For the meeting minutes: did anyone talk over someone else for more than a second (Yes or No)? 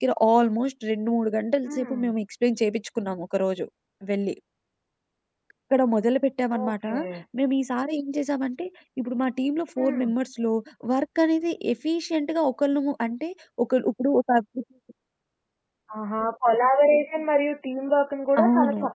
No